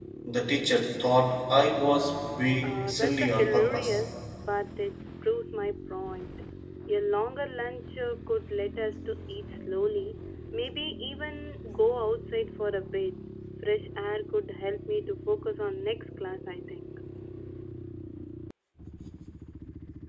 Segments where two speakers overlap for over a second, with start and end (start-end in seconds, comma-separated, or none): 2.6-4.0